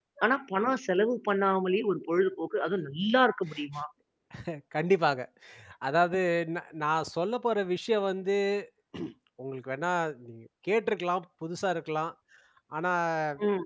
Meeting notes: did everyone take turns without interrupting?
Yes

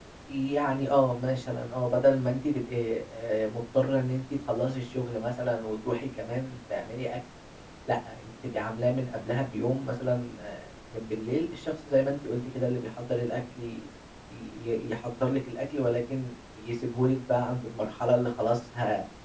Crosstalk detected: No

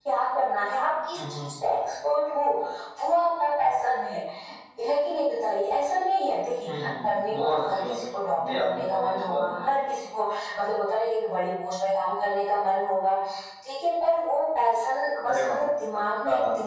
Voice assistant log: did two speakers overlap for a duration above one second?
Yes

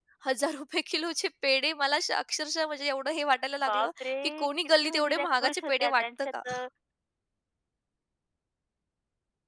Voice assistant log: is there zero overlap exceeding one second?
No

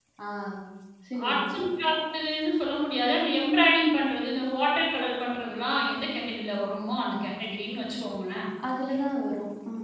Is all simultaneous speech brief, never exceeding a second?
Yes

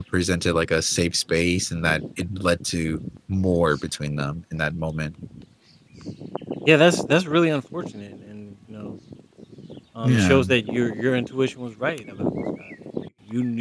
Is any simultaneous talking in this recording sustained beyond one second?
No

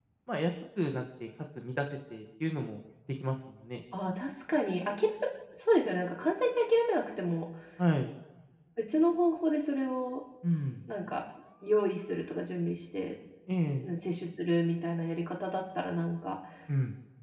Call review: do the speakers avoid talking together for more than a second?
Yes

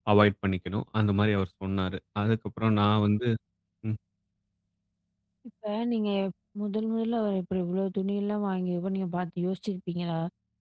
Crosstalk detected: No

